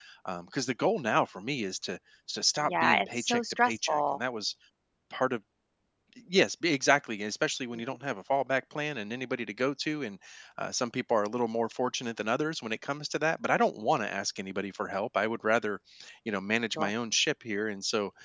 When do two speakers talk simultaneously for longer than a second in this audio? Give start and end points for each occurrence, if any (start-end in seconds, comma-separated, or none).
2.7-4.2